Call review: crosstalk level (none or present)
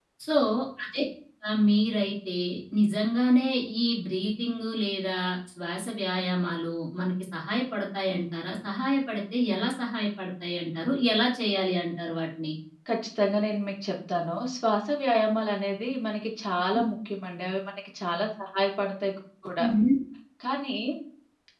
none